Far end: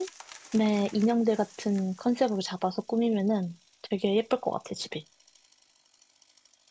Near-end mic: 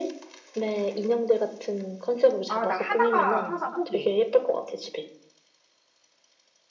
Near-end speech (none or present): present